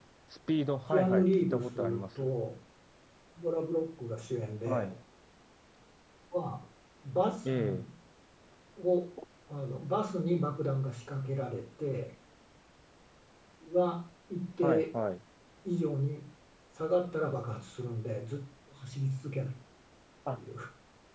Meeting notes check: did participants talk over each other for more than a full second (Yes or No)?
Yes